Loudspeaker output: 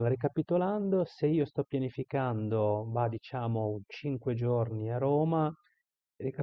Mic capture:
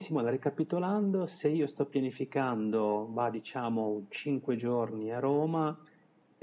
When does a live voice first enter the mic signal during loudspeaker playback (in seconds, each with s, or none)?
none